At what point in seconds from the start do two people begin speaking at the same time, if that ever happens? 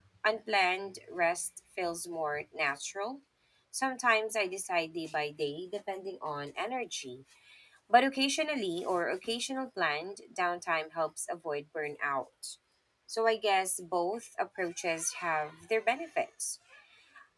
none

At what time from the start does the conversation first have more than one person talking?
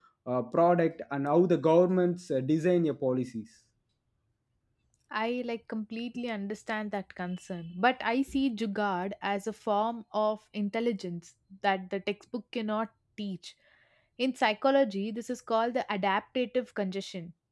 none

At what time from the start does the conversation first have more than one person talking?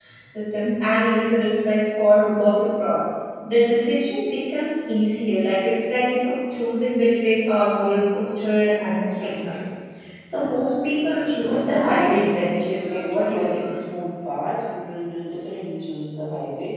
11.7 s

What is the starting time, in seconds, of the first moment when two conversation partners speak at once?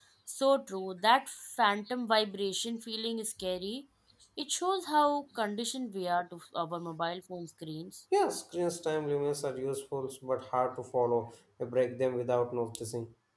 none

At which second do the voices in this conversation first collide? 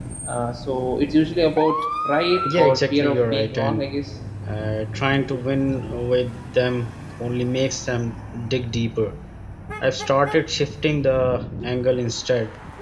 2.5 s

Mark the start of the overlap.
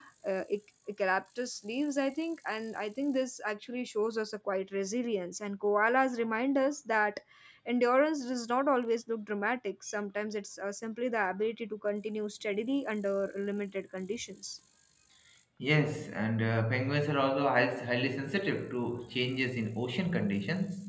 none

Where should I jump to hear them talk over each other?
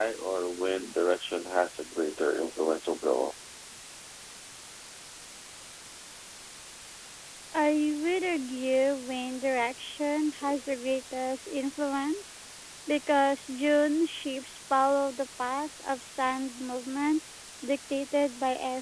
none

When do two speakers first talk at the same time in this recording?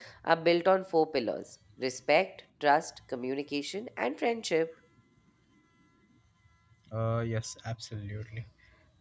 none

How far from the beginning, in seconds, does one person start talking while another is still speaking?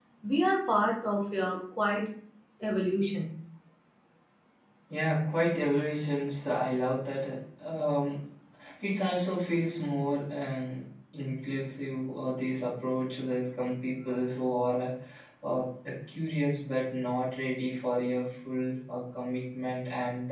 none

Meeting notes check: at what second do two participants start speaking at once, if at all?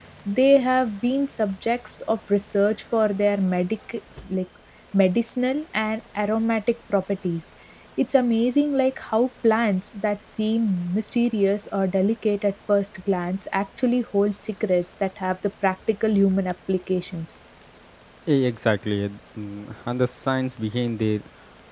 none

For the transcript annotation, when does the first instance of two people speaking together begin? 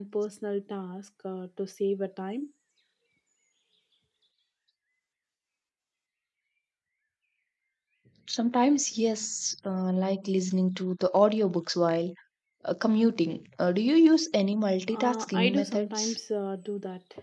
14.9 s

